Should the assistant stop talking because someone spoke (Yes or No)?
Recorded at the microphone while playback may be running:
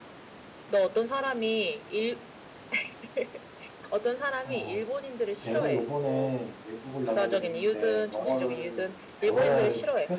Yes